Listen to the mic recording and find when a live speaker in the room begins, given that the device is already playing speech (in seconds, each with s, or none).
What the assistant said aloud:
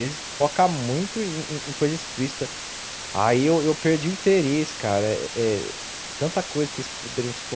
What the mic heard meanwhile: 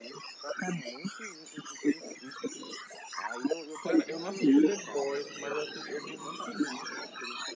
3.8 s